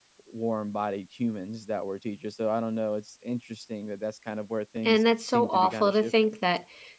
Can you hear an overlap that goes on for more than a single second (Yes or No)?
Yes